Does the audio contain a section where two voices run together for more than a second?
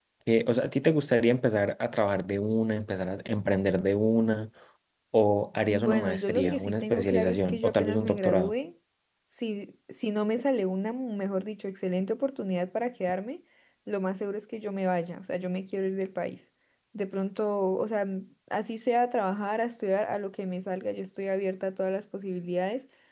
Yes, from 5.7 s

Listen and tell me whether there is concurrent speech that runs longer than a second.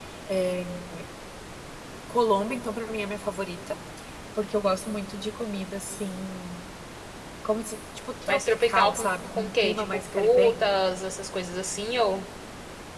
Yes, from 8.3 s

